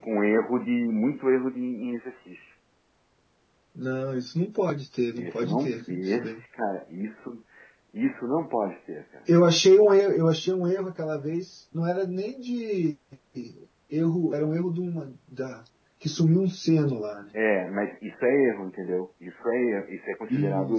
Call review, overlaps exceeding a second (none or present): present